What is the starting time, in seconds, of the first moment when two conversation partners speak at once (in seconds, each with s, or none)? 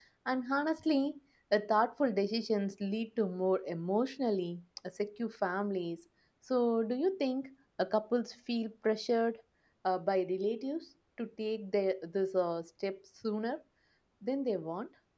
none